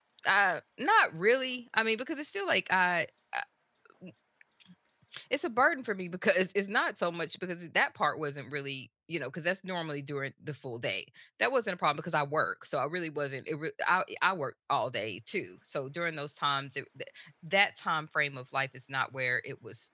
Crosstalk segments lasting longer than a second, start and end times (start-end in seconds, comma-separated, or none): none